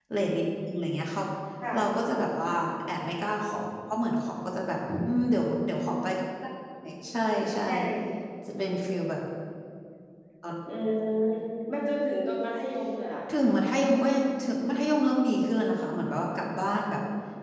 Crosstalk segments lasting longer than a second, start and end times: none

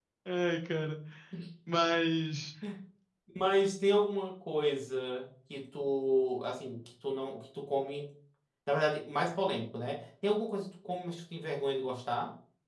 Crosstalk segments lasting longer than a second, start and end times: none

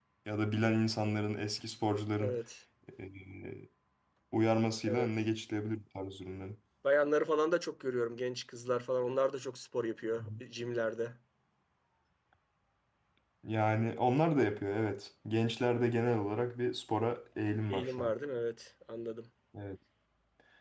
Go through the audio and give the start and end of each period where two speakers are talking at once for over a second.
none

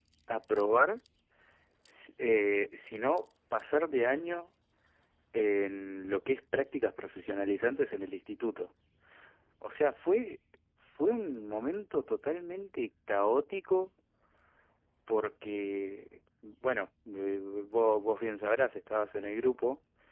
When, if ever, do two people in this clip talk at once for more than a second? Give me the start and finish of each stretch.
none

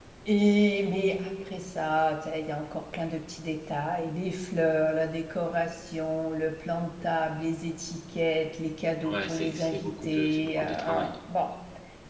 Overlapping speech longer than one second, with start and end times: 9.1-11.2

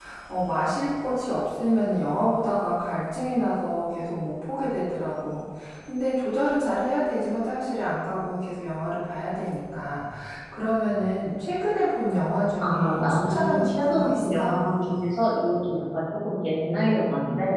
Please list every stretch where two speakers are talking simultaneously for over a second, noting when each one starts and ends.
12.6-14.5

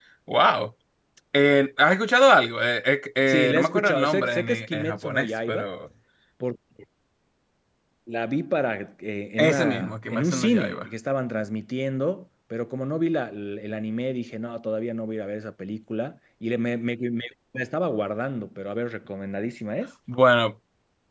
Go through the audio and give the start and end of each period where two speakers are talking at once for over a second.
3.3-5.7, 9.4-10.9

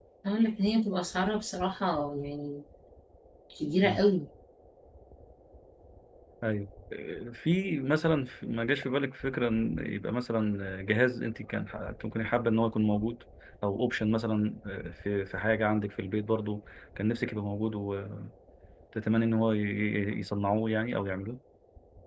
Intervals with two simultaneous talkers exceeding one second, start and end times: none

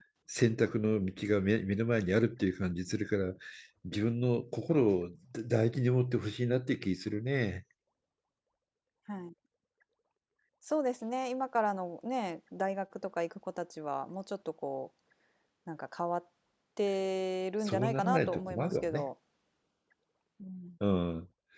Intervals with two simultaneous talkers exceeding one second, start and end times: 17.6-19.1

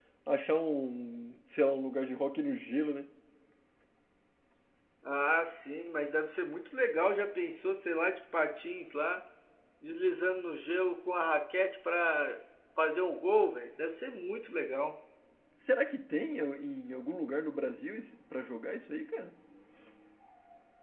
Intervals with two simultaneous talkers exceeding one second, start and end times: none

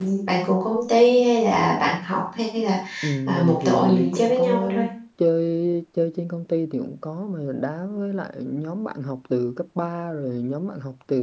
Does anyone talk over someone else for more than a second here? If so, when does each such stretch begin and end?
3.3-4.7

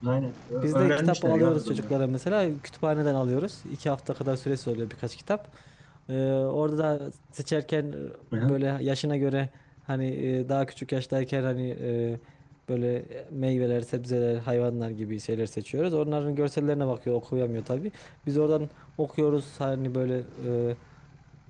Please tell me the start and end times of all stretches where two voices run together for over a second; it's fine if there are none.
0.6-1.9

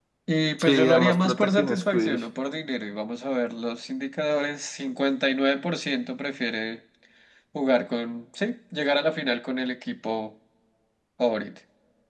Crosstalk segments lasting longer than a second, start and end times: 0.6-2.2

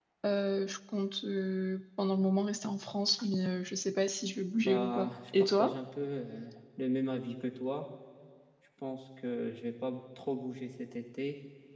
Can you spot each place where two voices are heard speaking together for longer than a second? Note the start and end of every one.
4.5-5.8

